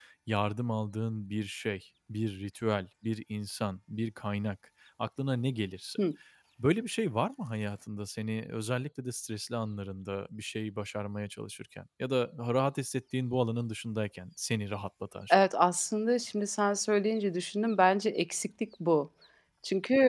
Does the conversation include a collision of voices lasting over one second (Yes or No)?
No